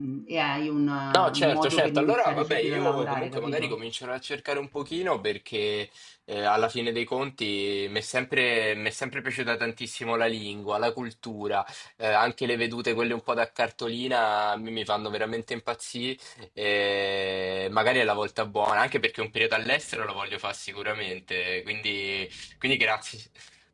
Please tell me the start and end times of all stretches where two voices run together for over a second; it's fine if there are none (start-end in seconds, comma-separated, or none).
1.1-3.8